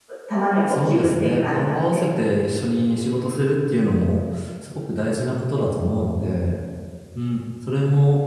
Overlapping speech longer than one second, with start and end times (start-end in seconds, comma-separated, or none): 0.7-2.0